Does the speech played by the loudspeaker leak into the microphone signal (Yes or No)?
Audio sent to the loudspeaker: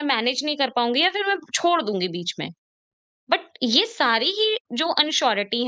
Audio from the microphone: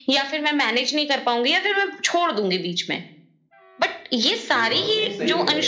Yes